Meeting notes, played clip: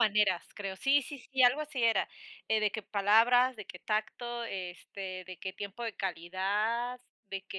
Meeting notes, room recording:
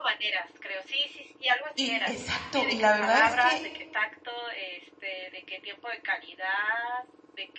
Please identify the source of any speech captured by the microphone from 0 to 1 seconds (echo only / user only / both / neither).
echo only